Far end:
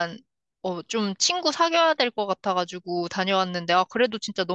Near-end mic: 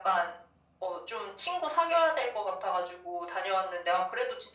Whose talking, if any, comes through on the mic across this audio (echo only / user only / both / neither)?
echo only